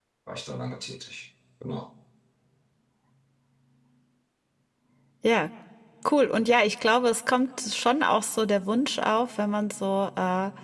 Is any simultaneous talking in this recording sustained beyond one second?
No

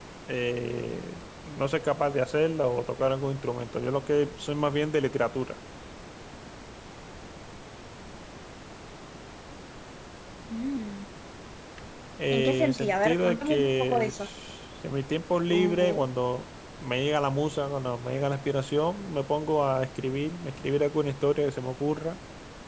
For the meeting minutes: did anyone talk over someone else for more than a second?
Yes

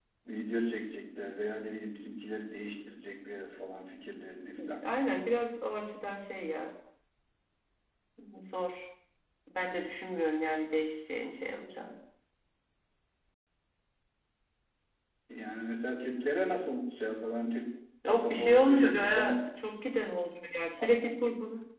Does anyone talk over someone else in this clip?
Yes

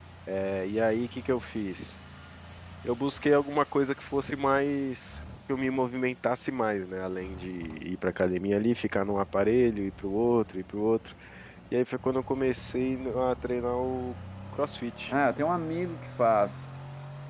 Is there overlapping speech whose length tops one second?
No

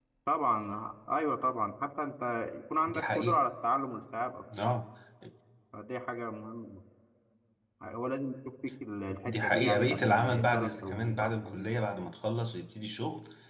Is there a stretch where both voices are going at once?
Yes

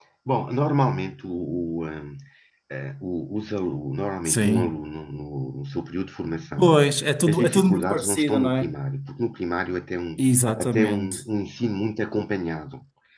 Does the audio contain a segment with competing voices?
Yes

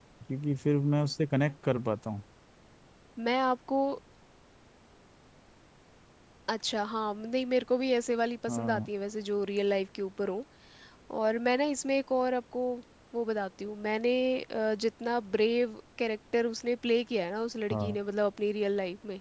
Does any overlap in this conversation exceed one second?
No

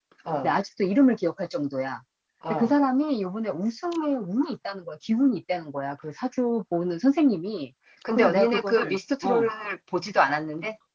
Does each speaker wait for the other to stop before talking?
No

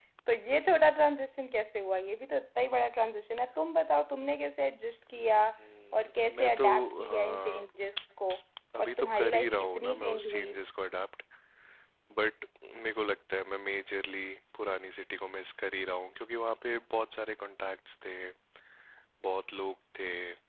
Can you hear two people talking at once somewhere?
Yes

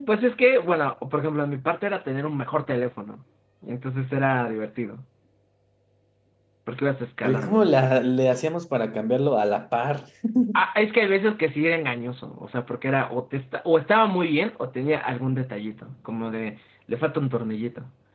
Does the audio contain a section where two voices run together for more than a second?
No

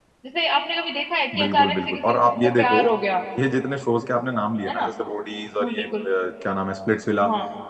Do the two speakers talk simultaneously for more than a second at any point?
Yes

